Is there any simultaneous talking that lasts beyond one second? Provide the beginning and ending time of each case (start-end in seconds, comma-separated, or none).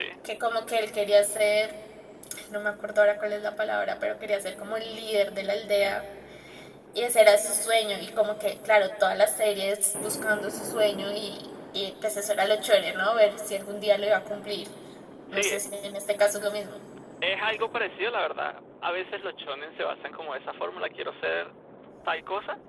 none